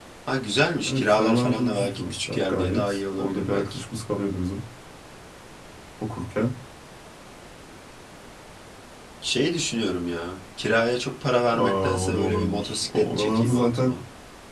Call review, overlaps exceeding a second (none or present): present